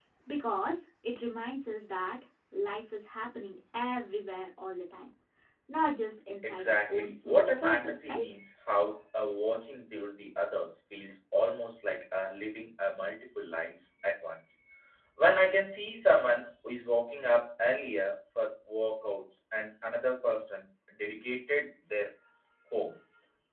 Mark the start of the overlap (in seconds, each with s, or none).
6.5 s